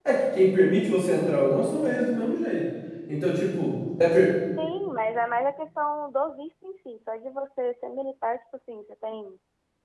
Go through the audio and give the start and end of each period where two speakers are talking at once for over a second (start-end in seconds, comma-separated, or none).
none